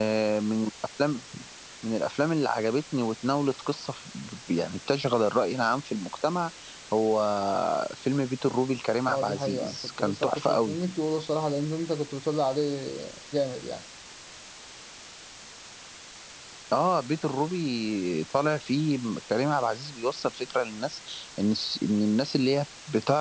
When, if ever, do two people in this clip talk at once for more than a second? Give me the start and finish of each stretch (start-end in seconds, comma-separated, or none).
9.1-10.8